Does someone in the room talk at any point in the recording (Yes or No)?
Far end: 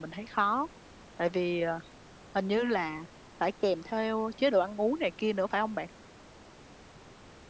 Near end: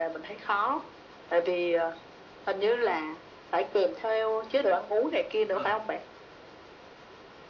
Yes